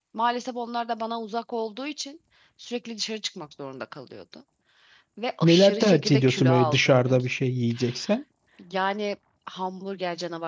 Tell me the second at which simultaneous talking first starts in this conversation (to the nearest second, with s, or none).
5 s